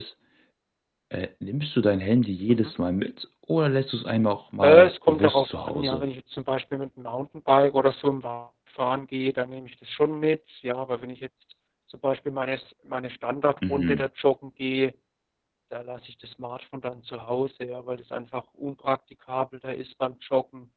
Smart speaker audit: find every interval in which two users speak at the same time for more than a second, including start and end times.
4.6-6.0

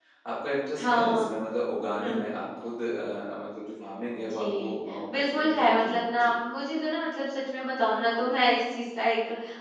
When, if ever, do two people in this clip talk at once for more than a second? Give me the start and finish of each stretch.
4.1-6.3

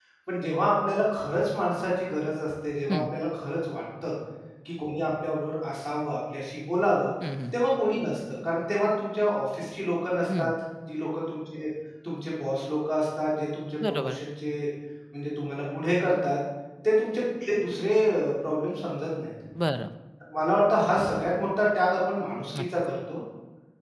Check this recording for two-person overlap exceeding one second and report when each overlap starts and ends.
none

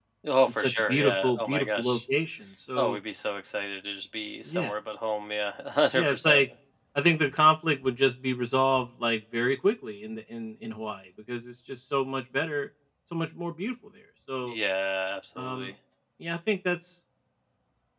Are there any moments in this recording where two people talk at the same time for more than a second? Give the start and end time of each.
0.6-2.0

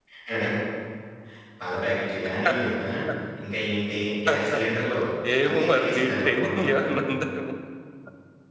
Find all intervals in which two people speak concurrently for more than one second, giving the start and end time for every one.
5.5-6.9

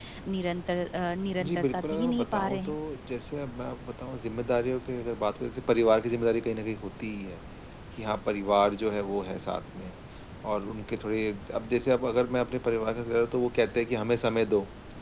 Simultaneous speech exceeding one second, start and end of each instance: 1.4-2.8

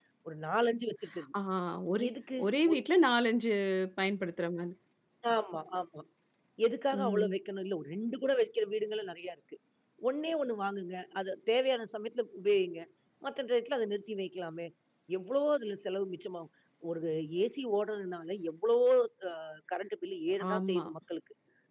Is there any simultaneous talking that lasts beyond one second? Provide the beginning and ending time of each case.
none

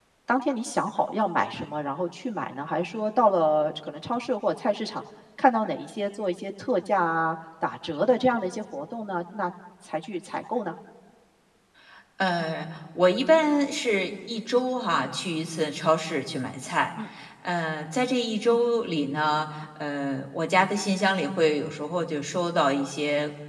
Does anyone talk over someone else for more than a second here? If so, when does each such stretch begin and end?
none

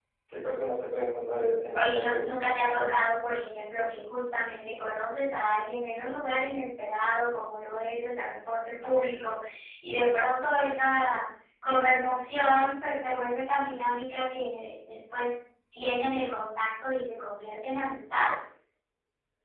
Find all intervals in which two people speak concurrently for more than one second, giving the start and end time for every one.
1.7-3.0

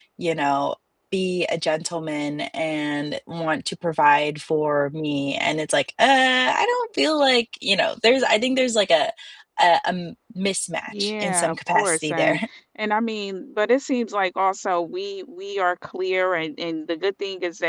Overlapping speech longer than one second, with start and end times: 10.9-12.4

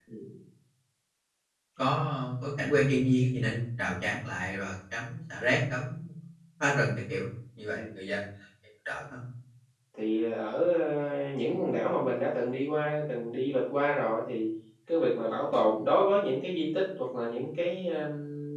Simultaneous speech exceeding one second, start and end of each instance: none

